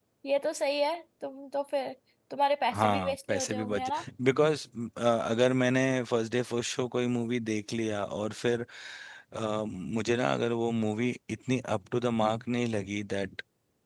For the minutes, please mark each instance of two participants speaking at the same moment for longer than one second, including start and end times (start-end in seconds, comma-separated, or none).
2.7-4.0